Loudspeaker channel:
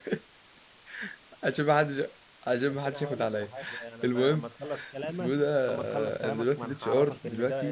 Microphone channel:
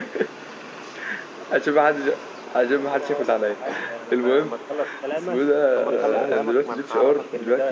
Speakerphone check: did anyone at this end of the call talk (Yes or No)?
Yes